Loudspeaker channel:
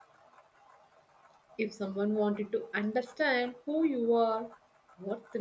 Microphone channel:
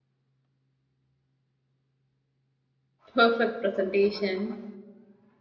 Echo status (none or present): none